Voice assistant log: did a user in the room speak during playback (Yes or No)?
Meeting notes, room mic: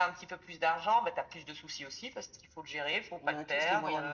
Yes